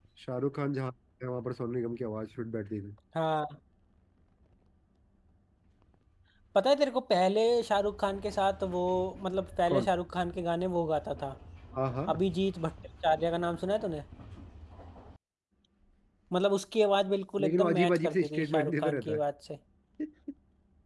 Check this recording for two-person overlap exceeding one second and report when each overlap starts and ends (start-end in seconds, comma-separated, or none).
17.4-19.2